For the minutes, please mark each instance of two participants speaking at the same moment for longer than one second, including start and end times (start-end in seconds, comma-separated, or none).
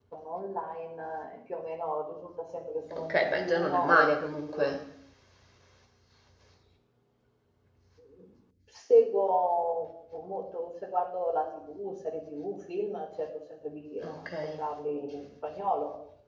3.0-4.7